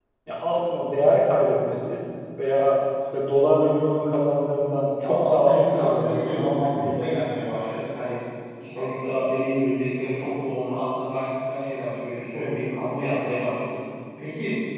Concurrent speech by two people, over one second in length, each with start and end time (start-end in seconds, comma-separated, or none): 5.0-6.9